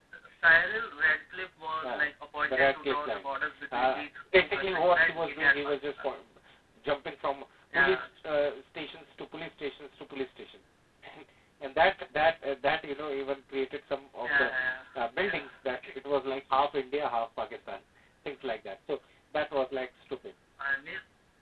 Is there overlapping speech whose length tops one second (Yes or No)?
Yes